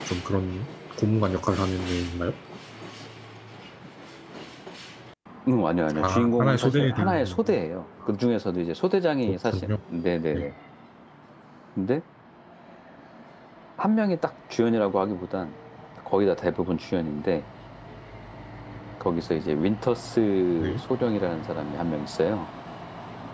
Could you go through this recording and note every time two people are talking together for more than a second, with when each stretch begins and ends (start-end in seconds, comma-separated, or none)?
6.0-7.5